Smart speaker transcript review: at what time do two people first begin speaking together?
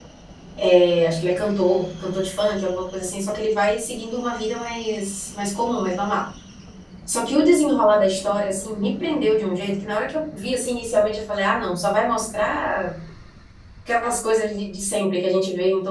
none

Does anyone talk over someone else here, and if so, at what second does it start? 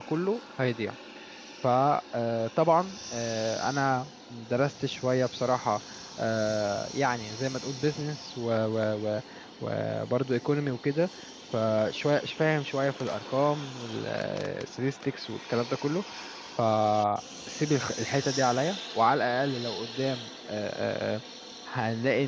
none

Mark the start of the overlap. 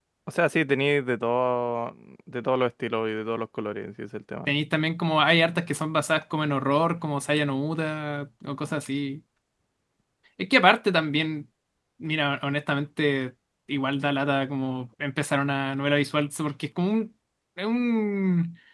none

